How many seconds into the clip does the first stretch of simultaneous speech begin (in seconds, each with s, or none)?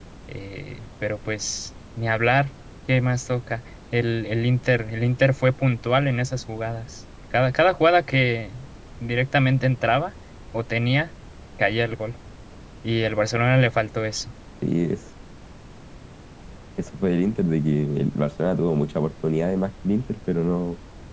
none